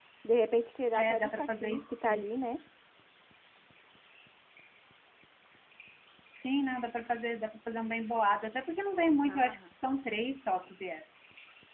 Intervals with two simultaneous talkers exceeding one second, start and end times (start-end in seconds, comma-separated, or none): 0.9-2.2